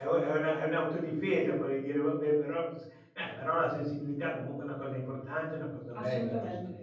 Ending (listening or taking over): taking over